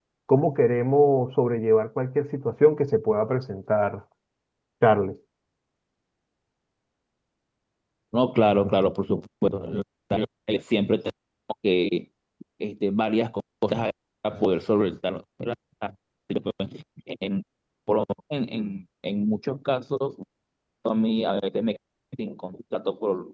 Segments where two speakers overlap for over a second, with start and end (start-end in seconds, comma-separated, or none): none